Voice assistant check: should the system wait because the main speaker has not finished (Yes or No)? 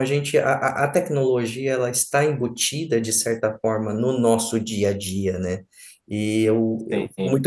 Yes